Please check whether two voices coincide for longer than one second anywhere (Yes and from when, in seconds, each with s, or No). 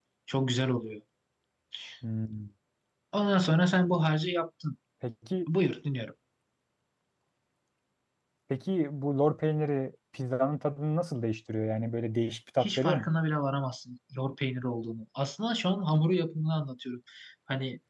No